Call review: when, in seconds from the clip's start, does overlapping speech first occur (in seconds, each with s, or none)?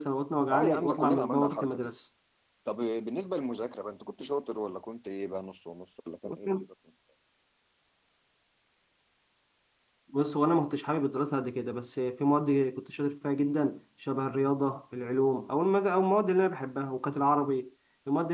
0.5 s